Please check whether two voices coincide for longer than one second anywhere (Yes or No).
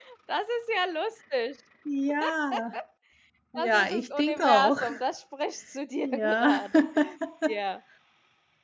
Yes